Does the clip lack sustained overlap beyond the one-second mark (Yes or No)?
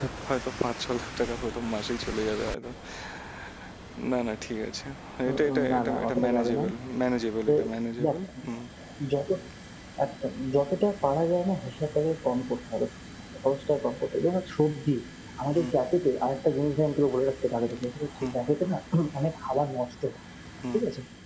No